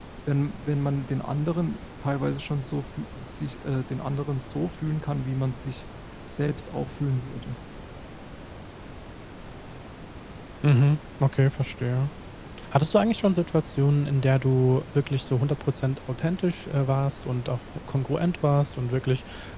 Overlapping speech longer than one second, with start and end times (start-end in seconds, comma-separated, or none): none